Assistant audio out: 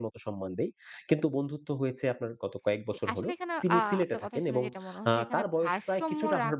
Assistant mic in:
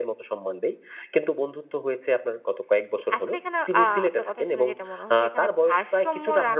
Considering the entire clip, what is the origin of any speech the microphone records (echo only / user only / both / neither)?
echo only